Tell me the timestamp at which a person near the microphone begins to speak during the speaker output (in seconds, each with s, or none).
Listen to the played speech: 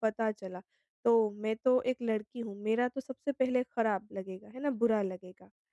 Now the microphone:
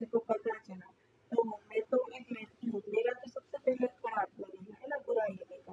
none